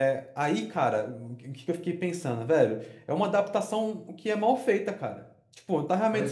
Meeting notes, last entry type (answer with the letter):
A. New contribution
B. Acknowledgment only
B